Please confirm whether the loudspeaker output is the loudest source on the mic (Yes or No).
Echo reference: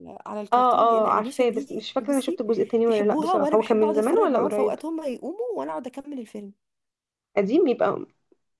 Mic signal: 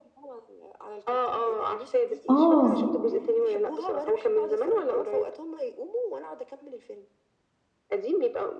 No